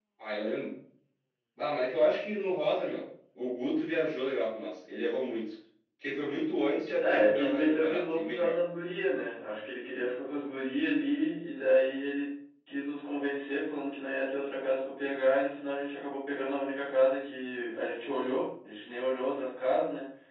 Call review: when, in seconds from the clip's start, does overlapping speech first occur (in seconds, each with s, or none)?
7.0 s